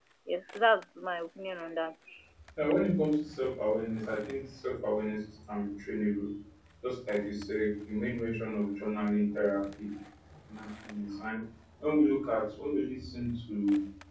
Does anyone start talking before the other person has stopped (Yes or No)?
No